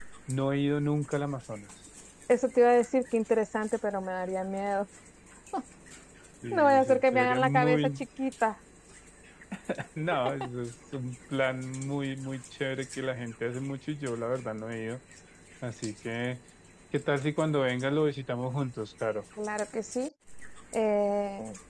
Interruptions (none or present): present